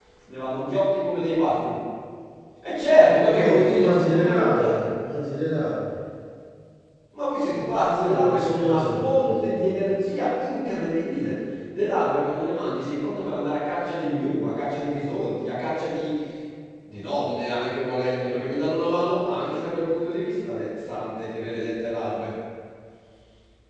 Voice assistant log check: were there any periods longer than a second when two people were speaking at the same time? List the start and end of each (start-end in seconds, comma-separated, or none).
3.2-4.8, 7.9-9.7